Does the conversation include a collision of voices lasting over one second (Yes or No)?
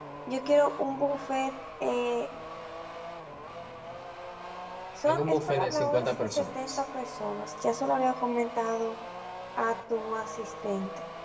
Yes